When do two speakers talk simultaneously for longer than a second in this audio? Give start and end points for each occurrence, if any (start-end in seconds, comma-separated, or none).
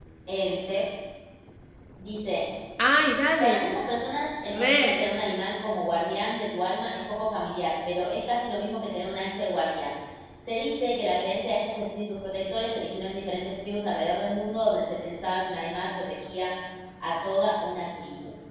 none